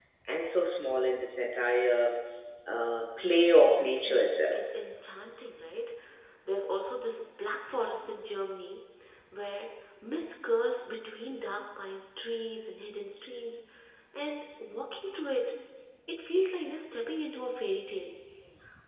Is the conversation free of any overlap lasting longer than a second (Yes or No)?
No